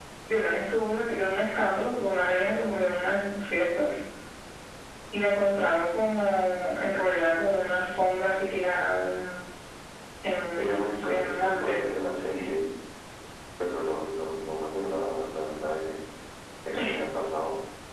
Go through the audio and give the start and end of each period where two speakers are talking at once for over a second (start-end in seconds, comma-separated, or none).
10.6-11.8